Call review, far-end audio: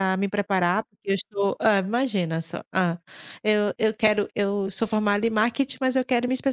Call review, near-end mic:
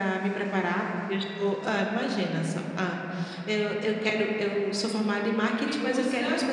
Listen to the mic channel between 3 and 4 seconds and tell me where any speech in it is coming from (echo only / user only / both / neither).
echo only